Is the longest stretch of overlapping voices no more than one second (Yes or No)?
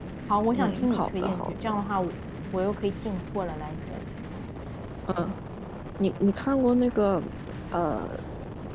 No